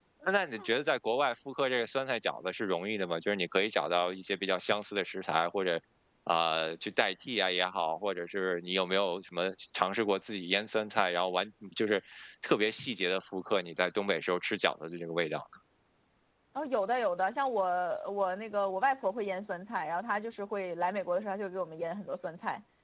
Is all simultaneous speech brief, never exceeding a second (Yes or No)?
Yes